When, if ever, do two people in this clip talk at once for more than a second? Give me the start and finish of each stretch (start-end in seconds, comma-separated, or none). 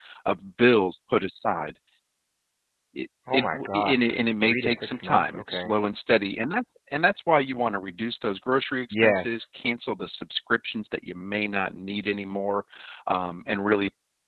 3.3-5.8